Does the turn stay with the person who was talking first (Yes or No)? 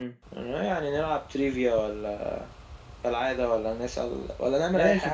No